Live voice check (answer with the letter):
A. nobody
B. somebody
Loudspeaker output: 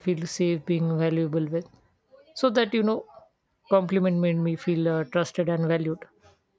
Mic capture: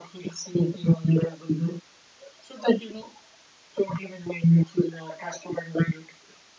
A